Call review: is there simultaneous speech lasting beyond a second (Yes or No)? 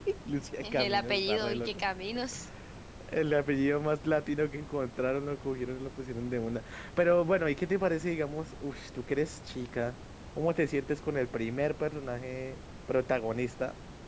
Yes